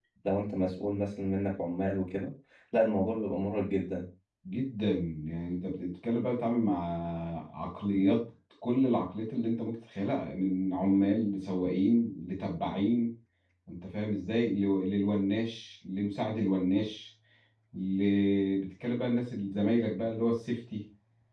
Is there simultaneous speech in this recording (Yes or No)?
No